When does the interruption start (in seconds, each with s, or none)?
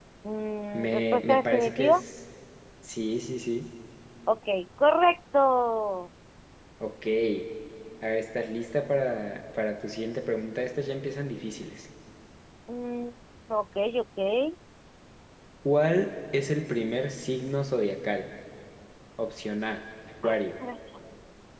0.7 s